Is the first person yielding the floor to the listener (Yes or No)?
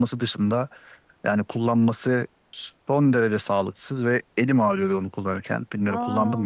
Yes